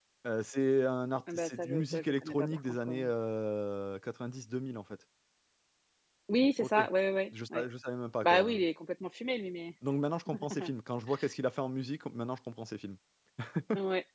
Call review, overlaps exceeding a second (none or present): present